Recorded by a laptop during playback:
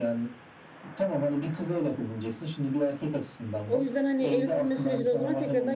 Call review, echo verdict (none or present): present